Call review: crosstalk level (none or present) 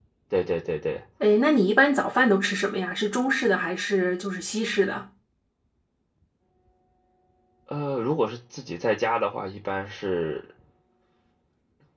none